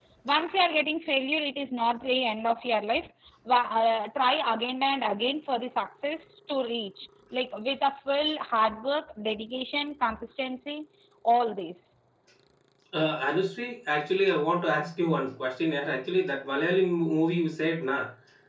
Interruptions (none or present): none